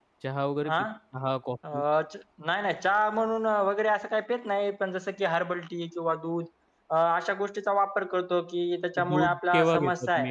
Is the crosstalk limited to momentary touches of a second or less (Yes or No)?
No